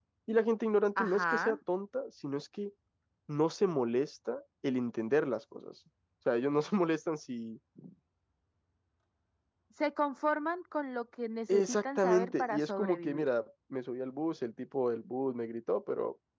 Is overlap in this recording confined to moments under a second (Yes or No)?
No